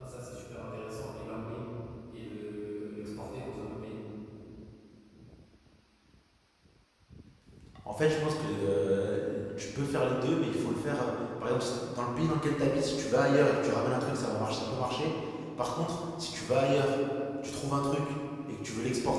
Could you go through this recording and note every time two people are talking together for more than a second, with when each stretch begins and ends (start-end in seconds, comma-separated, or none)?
none